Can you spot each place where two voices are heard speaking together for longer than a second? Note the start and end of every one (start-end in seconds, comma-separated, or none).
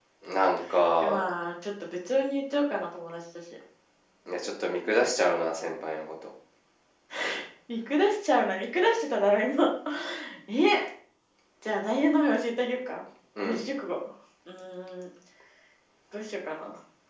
none